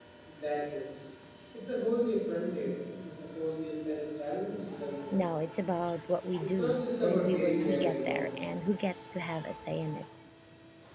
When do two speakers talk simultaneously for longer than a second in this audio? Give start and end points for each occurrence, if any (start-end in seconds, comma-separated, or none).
6.4-8.2